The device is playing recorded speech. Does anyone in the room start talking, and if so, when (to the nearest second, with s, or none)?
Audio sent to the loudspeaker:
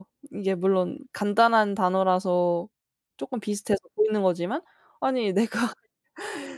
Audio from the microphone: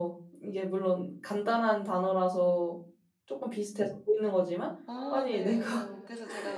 5 s